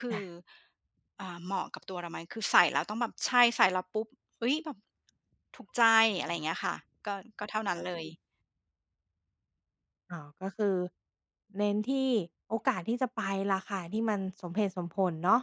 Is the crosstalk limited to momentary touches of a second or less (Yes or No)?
Yes